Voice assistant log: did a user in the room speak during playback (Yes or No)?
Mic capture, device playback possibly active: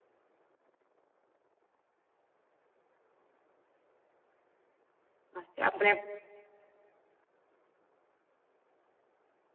Yes